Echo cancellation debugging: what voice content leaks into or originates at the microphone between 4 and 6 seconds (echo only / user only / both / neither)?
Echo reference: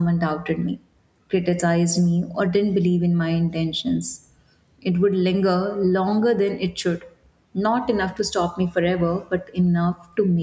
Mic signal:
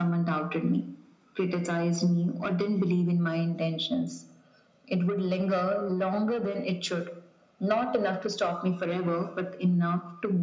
echo only